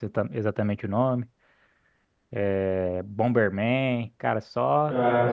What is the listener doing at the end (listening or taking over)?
taking over